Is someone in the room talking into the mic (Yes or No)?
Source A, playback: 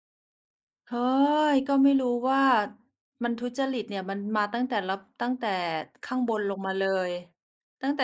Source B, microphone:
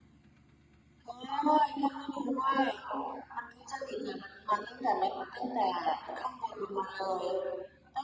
No